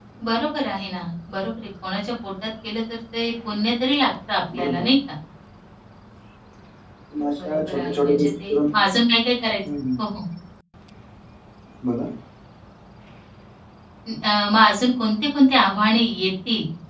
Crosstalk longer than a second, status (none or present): present